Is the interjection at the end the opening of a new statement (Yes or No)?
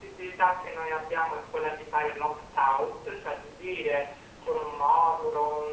No